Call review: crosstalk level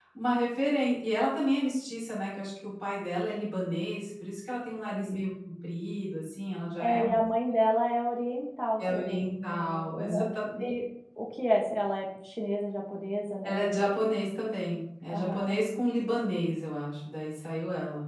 present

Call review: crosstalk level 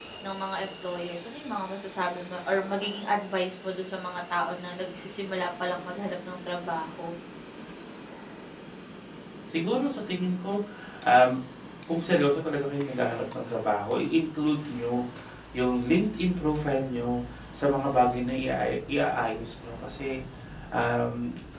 none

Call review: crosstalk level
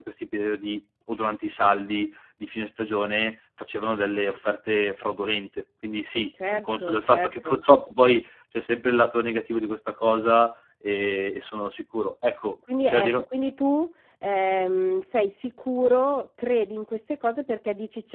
present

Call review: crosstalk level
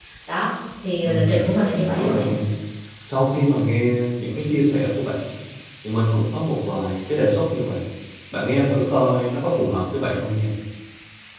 present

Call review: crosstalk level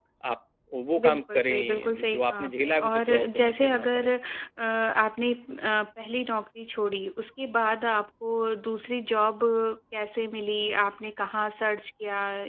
present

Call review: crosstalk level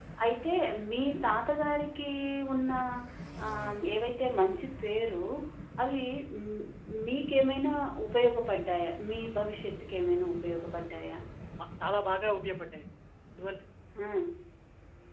none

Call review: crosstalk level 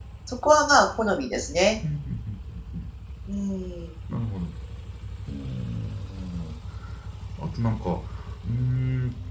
none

